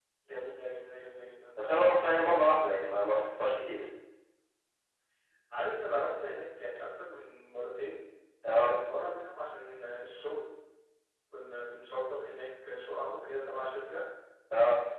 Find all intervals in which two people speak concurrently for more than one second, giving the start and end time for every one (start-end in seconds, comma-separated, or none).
none